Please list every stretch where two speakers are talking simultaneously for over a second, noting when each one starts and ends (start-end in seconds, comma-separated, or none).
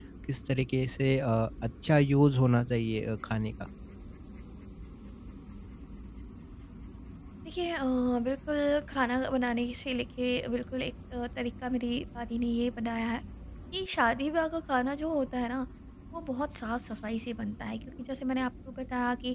none